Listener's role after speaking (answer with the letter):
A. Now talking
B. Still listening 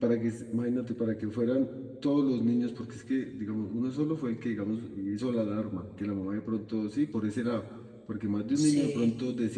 B